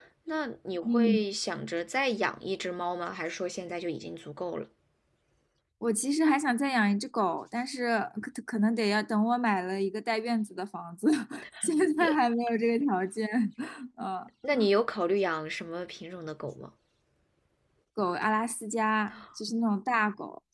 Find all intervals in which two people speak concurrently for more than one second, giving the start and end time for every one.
none

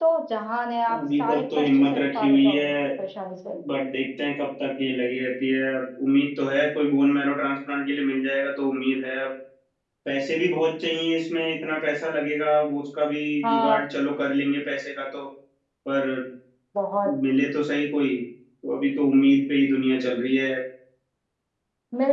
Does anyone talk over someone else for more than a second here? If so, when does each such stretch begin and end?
0.9-2.7

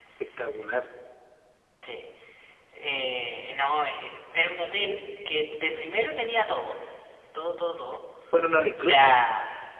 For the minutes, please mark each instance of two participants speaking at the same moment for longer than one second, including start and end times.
none

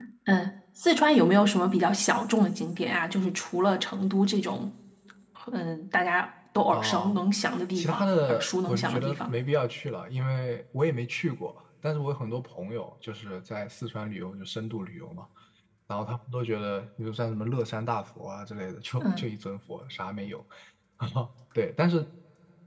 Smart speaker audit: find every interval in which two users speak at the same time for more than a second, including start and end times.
7.8-9.3

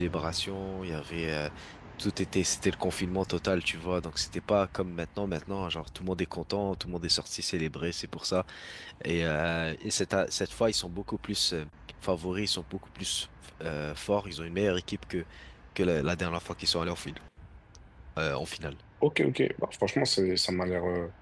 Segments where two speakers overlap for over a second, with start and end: none

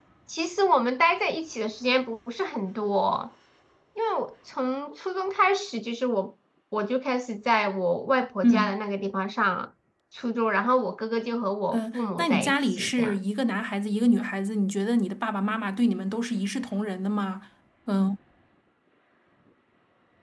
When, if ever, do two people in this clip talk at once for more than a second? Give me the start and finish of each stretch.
11.7-13.2

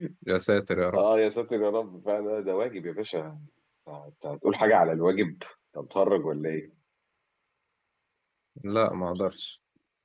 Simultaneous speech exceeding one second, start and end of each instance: none

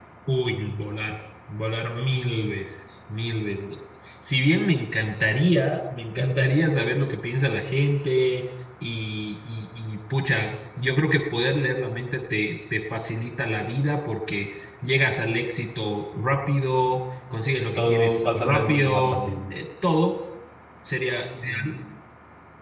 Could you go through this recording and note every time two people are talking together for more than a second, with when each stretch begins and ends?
17.8-19.2

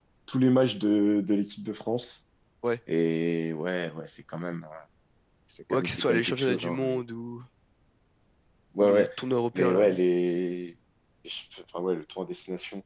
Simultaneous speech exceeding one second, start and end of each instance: 5.7-7.0

